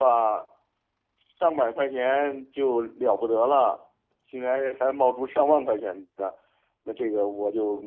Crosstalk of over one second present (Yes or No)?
No